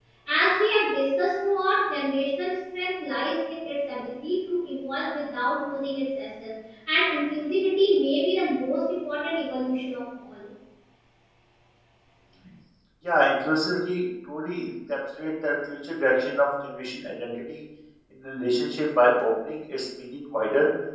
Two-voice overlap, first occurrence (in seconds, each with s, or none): none